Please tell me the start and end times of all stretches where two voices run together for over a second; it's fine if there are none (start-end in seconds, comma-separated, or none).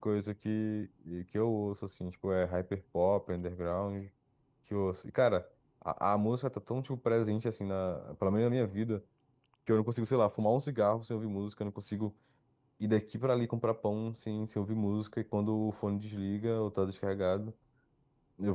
none